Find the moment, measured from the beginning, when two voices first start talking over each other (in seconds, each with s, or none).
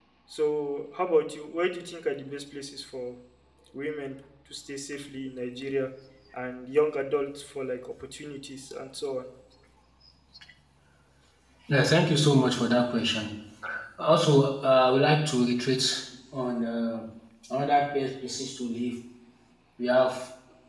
none